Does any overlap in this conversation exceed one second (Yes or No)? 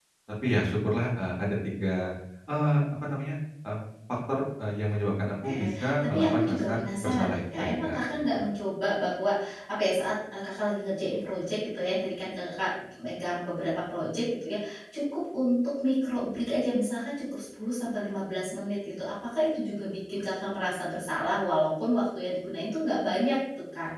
Yes